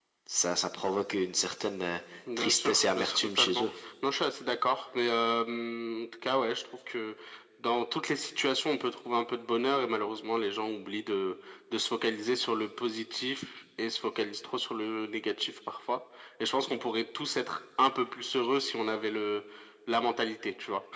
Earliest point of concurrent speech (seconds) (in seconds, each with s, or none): 2.4 s